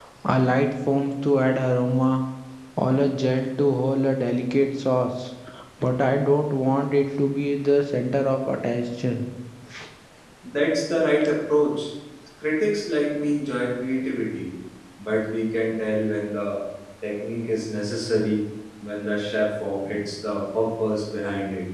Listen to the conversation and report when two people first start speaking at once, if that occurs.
none

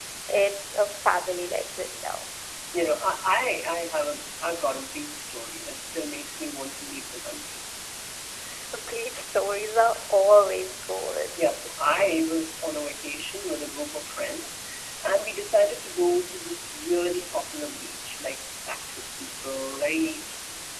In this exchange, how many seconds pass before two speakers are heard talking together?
none

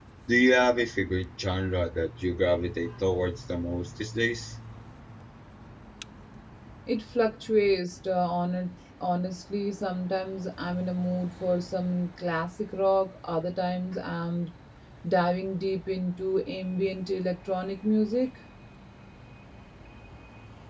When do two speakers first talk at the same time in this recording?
none

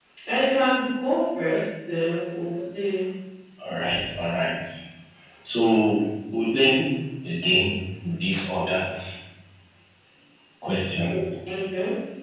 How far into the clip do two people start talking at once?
none

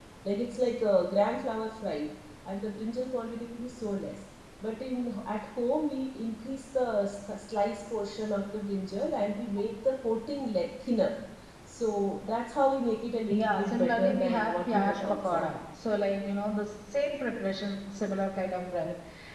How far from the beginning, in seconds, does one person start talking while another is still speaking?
13.3 s

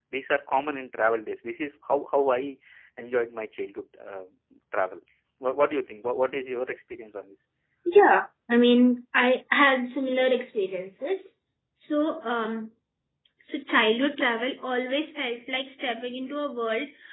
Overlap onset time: none

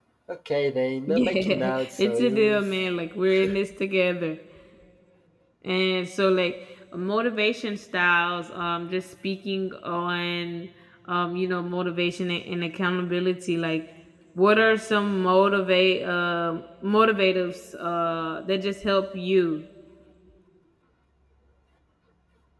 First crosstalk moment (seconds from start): 1.1 s

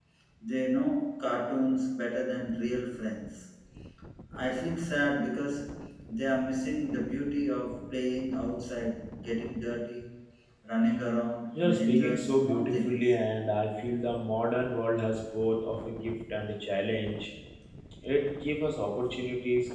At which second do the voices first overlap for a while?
11.6 s

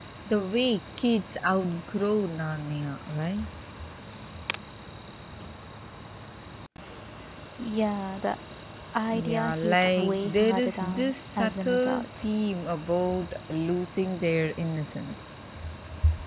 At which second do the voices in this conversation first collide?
9.1 s

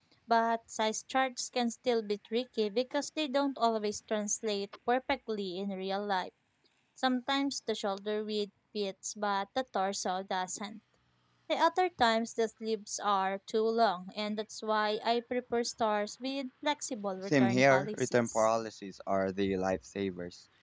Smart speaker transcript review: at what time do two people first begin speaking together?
17.2 s

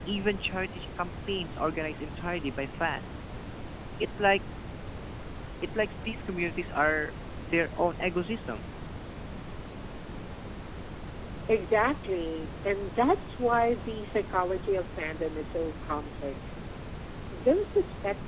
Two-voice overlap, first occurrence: none

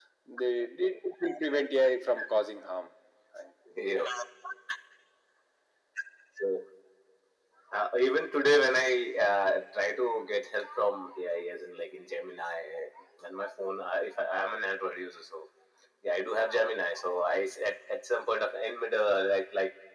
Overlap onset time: none

